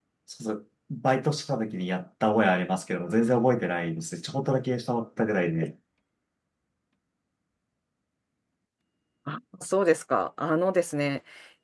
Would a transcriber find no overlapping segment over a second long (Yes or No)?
Yes